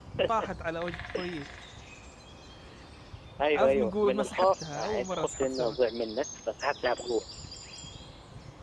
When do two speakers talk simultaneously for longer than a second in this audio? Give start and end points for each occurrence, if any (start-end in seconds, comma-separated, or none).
3.5-5.8